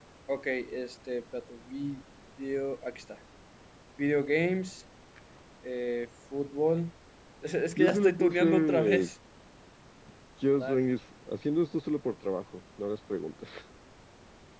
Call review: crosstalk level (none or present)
present